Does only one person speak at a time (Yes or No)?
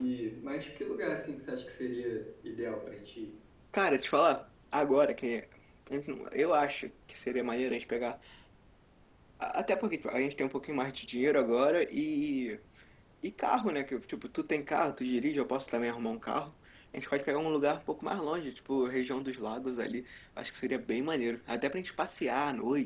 Yes